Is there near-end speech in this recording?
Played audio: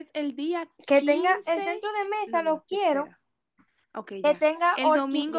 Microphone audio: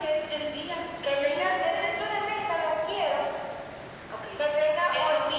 No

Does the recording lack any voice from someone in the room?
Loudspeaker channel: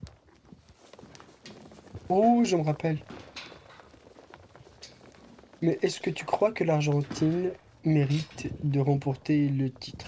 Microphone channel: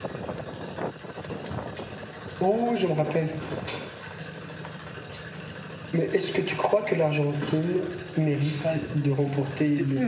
No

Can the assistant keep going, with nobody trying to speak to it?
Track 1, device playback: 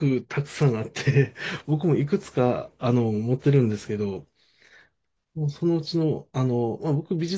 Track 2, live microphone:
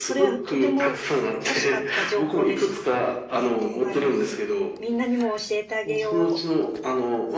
No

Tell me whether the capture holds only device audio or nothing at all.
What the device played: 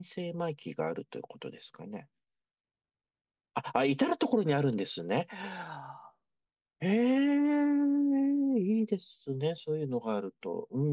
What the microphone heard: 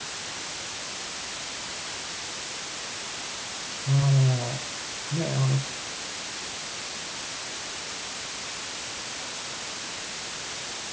No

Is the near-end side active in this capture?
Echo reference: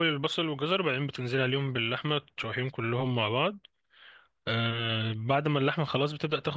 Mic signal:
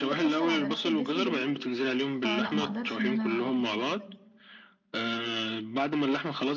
Yes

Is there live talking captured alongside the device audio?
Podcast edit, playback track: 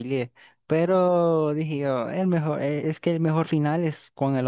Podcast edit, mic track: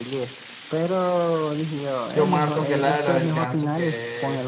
Yes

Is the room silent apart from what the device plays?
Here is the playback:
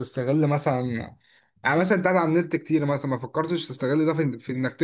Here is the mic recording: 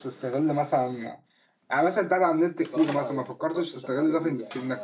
No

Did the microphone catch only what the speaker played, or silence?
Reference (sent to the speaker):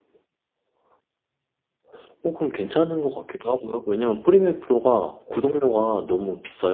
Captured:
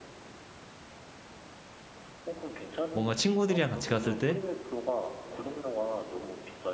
No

